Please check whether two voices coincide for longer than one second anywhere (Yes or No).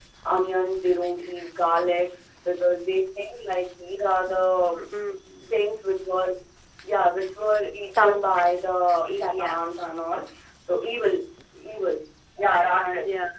No